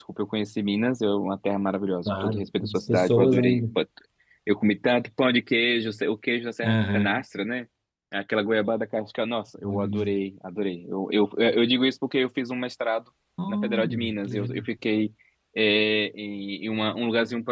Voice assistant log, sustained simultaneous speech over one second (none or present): present